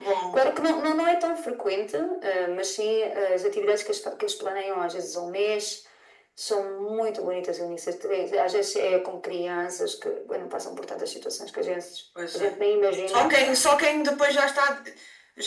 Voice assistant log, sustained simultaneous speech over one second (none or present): none